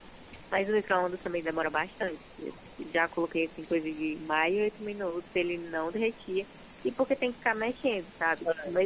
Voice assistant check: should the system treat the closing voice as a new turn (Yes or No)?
No